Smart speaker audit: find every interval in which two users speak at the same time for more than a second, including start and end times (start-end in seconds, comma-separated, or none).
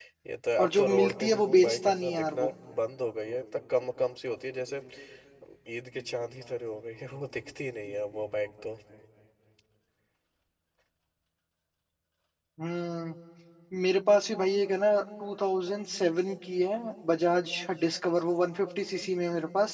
0.6-2.5